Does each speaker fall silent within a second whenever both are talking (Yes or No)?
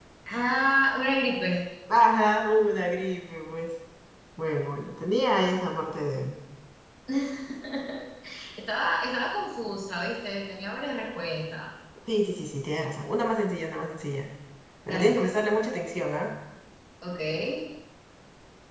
Yes